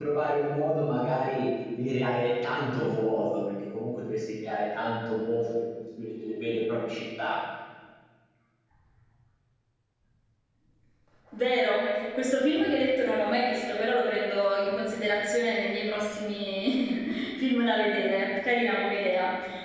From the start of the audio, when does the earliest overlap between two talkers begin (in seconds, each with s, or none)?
none